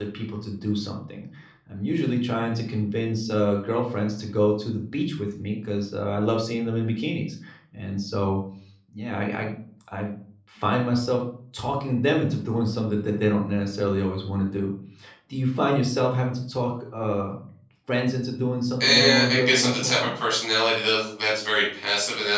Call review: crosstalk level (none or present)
present